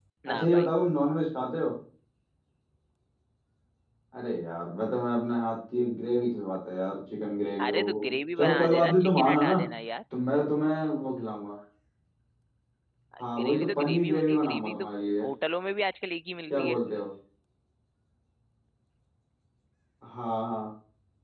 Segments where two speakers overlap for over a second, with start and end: 8.4-9.6, 13.4-14.9

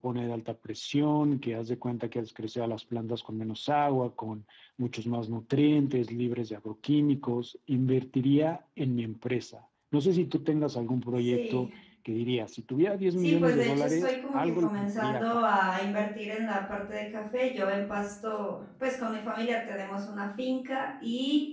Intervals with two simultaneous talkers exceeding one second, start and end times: 13.2-15.4

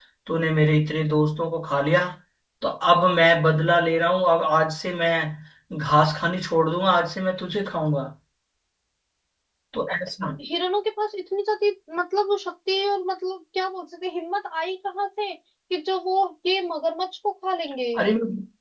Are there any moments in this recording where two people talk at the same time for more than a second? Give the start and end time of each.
none

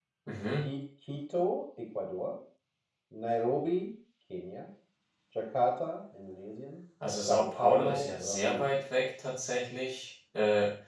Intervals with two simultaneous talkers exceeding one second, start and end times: 7.3-8.8

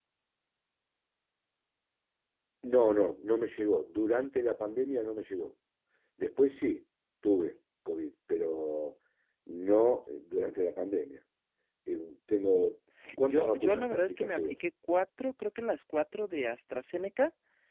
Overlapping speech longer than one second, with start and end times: 13.3-14.6

